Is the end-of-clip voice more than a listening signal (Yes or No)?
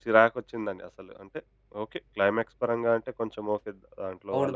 Yes